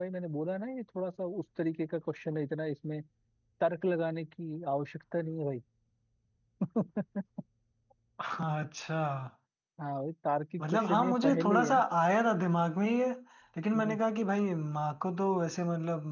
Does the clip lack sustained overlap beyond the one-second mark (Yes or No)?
No